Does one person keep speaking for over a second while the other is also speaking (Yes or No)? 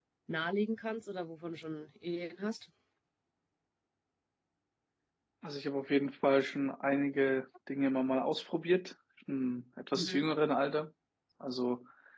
No